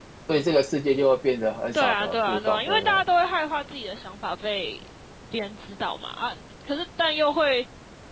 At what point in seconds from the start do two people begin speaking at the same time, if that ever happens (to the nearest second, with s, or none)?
2 s